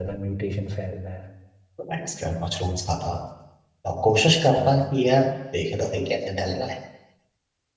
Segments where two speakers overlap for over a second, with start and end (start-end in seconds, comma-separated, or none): none